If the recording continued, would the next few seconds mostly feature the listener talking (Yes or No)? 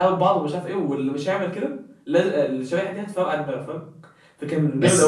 Yes